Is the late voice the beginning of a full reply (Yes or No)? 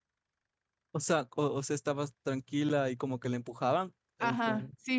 Yes